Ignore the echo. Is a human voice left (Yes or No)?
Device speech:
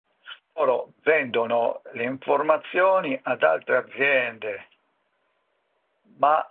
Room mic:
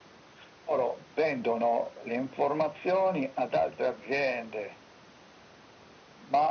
No